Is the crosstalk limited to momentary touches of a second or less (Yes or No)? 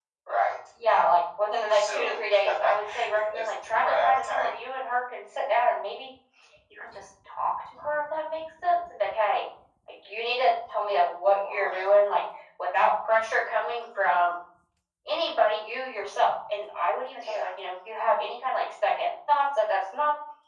No